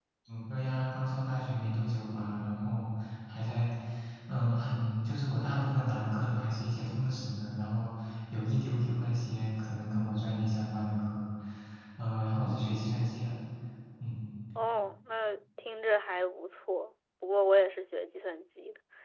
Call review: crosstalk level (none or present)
none